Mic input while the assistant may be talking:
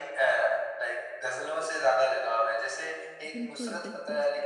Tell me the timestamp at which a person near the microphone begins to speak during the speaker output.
3 s

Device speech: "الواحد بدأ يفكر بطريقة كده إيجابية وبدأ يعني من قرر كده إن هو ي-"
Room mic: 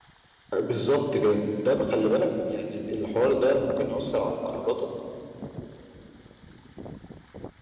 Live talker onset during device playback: 1 s

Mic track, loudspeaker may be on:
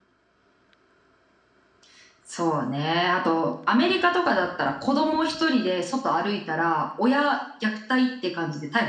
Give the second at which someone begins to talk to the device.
none

